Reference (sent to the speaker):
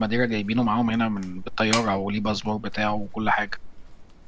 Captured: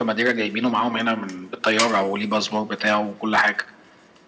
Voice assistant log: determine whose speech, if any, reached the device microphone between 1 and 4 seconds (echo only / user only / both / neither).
echo only